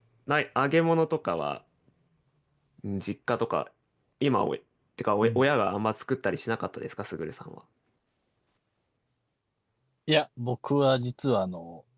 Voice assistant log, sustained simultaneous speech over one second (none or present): none